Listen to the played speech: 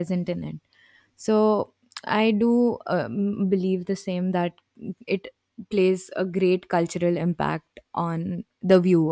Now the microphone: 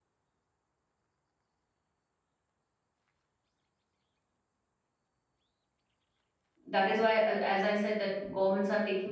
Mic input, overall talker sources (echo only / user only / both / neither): user only